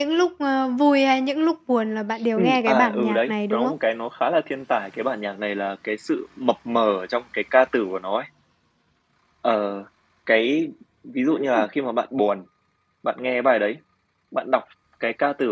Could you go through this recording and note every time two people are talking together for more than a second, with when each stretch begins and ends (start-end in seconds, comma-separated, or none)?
2.4-3.7